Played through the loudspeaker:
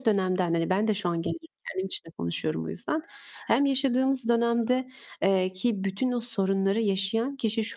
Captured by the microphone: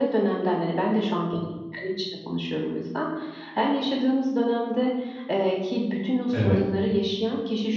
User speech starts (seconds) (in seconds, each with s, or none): 6.3 s